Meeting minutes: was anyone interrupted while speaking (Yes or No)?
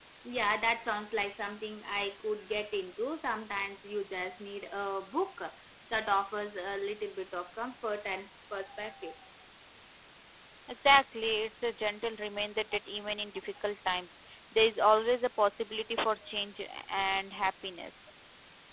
No